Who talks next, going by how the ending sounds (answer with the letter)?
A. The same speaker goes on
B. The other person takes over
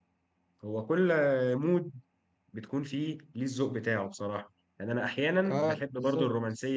A